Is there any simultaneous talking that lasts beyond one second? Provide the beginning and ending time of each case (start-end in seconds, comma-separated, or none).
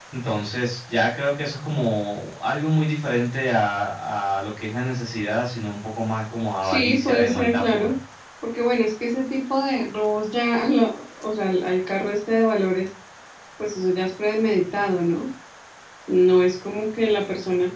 6.6-8.0